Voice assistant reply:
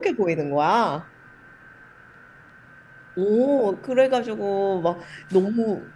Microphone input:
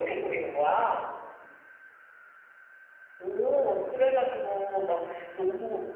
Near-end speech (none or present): none